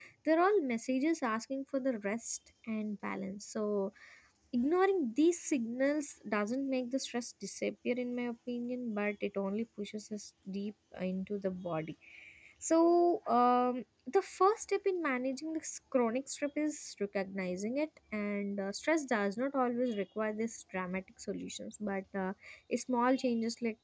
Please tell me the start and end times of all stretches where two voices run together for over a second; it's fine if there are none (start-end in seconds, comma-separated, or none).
none